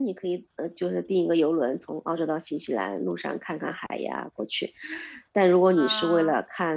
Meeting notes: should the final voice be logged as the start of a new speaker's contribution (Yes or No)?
No